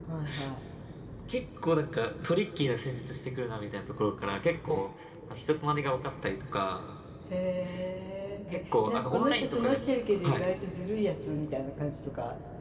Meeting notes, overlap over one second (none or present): present